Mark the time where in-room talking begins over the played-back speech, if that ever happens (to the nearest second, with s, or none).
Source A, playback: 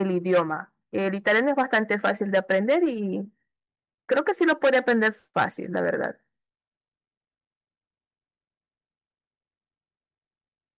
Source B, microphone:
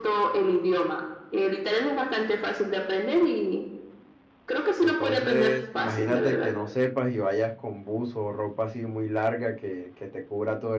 5 s